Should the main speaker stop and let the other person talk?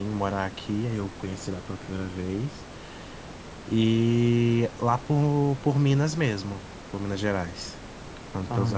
Yes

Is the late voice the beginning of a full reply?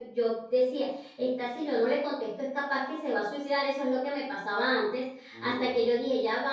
No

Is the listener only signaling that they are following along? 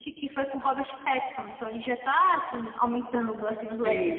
No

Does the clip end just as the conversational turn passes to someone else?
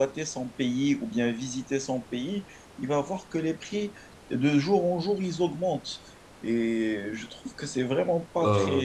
No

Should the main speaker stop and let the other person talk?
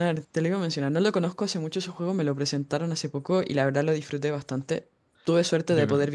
No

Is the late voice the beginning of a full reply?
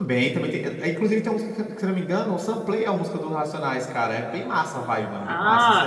Yes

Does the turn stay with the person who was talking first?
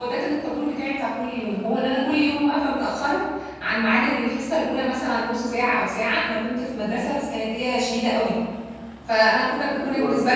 Yes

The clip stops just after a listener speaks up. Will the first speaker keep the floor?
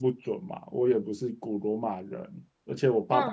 Yes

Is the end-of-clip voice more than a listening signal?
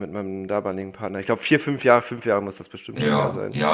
Yes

